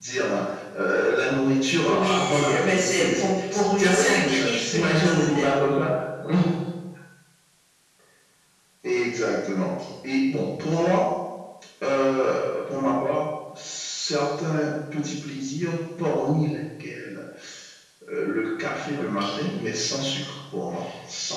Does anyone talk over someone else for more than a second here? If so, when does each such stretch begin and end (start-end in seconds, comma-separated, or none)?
1.9-5.5